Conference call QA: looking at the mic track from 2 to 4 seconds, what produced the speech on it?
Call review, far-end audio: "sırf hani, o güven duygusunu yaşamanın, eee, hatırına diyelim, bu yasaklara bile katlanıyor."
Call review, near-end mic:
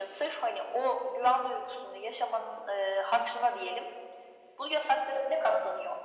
echo only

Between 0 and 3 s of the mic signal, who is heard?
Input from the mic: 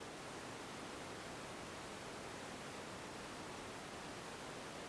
neither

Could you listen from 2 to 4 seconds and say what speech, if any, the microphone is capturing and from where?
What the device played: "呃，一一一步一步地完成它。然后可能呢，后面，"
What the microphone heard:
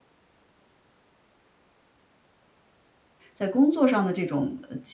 user only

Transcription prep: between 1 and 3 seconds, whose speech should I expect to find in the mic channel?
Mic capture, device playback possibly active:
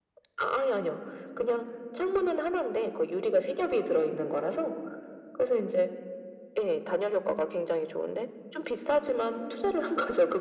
echo only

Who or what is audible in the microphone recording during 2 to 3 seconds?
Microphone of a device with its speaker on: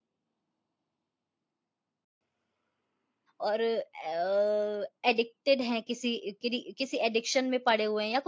neither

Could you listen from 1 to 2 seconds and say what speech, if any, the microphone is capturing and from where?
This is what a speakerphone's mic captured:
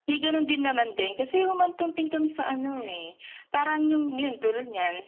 echo only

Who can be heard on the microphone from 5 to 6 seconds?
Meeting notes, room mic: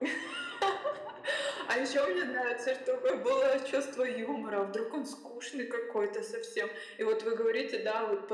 echo only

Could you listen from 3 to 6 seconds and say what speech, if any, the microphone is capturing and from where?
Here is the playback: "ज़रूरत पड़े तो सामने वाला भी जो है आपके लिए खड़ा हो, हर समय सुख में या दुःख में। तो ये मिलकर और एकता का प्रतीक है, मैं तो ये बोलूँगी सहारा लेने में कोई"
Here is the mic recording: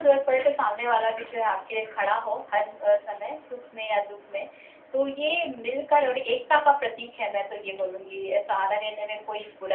echo only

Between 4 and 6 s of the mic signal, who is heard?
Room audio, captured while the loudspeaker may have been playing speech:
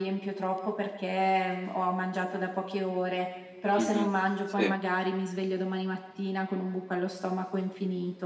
both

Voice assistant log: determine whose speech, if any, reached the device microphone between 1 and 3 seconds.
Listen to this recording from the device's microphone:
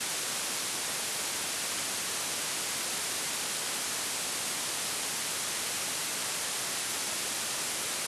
neither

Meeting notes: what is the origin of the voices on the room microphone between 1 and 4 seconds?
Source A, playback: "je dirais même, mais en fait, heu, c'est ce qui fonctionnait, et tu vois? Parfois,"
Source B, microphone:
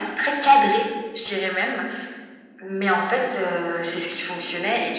echo only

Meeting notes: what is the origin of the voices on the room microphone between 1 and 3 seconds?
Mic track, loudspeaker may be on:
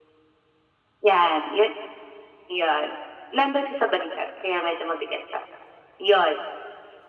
echo only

